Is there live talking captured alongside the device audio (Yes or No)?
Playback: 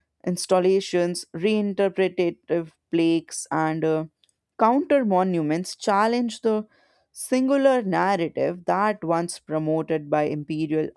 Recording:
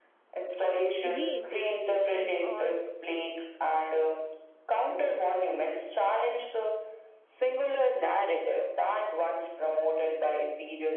Yes